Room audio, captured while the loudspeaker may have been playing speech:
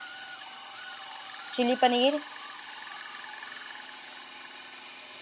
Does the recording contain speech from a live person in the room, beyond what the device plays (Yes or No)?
Yes